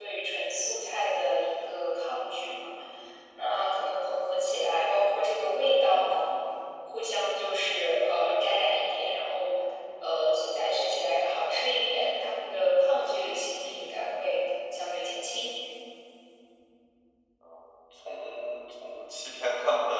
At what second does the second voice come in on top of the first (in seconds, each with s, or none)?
none